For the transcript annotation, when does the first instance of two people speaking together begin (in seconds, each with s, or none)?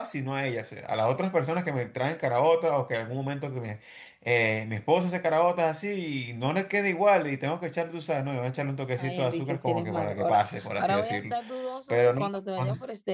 9.0 s